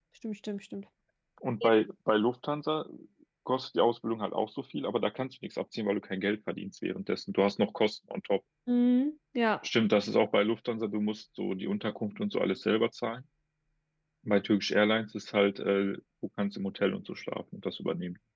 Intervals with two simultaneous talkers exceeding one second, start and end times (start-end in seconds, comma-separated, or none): none